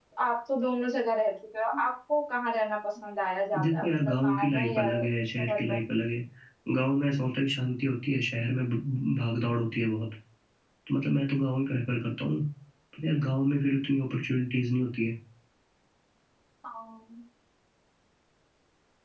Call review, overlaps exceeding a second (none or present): present